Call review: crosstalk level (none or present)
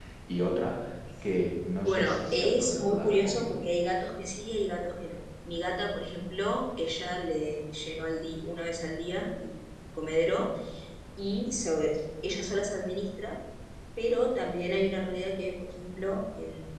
present